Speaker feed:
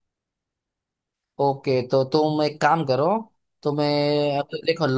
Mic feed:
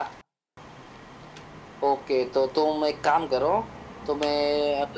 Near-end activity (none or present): none